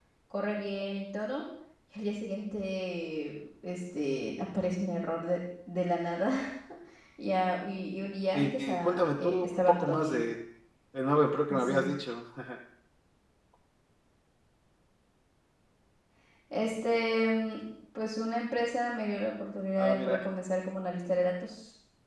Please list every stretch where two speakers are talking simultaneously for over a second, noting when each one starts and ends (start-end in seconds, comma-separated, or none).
8.3-10.2